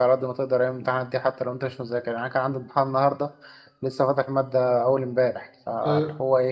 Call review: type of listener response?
listening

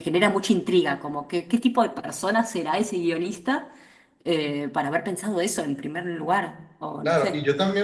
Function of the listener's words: taking over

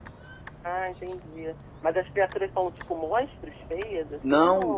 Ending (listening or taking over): taking over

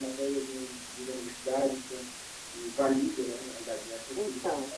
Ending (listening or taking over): taking over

